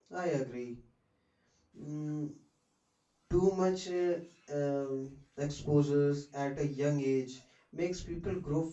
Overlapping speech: No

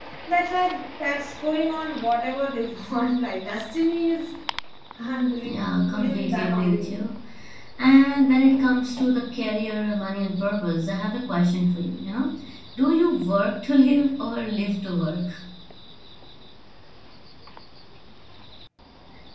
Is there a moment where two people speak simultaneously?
Yes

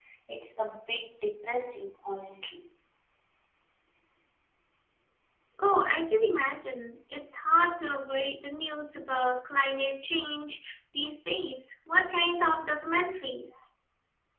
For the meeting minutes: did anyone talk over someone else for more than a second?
No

